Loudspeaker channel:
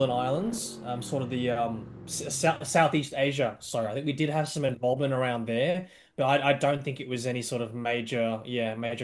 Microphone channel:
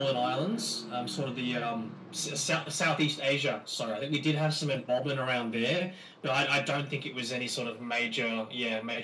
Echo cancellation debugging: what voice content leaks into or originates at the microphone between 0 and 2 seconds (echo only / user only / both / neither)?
echo only